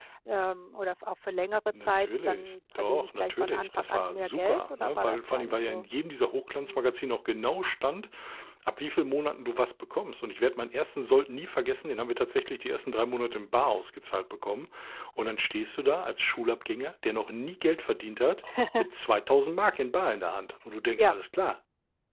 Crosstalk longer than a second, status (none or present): present